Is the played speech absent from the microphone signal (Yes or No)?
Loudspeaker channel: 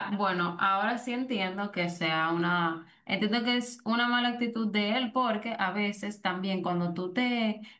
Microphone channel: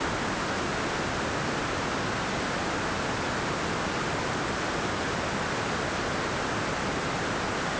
Yes